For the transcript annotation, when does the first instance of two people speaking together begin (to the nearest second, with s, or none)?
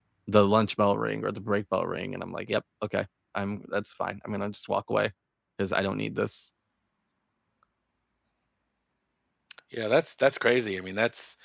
none